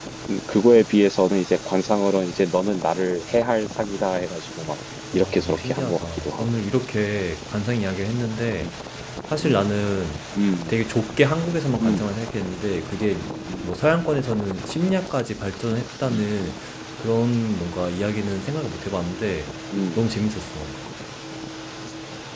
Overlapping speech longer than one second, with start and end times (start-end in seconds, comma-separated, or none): 5.1-6.5